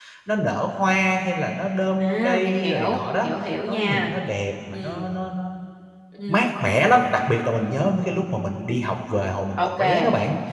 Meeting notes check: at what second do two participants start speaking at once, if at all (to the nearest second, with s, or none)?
2 s